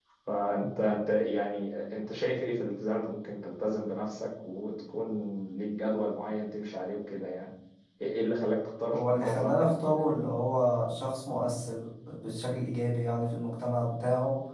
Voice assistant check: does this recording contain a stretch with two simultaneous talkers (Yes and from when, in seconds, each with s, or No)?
Yes, from 8.9 s